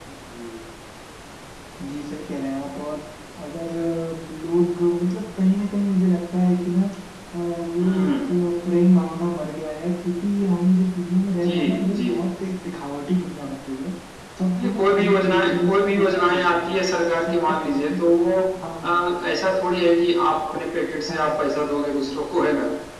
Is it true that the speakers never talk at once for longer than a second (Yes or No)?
No